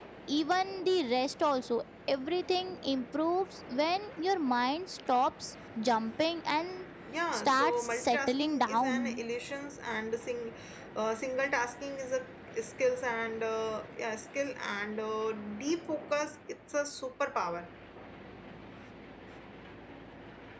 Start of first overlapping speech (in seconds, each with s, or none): 7.3 s